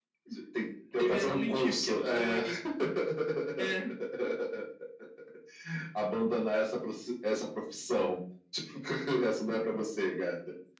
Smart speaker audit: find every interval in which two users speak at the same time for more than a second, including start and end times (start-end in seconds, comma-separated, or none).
0.9-2.4